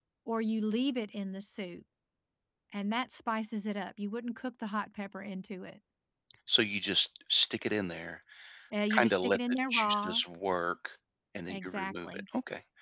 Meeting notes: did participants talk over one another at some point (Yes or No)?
Yes